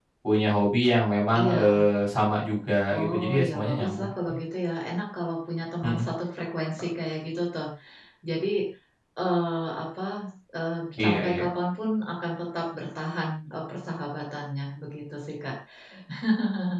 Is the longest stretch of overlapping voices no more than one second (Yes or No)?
No